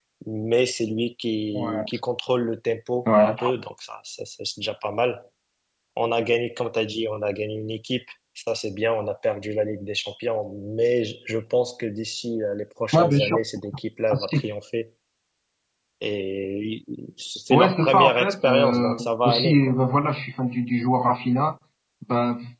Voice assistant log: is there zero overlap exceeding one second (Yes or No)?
No